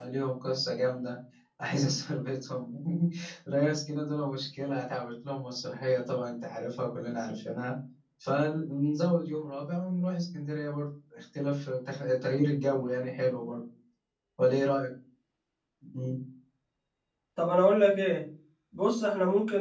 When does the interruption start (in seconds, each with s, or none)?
none